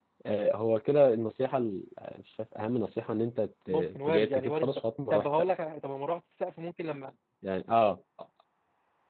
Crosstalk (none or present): present